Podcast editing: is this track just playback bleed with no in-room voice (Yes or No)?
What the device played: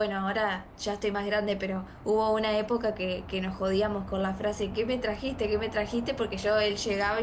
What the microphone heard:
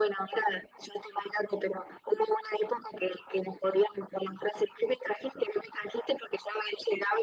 Yes